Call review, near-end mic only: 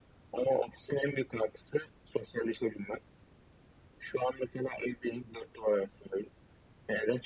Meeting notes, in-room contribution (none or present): none